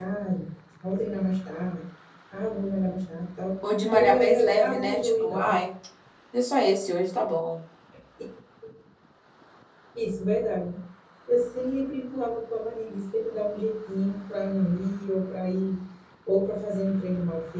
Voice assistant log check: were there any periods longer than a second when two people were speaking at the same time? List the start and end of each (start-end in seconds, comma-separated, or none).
3.9-5.5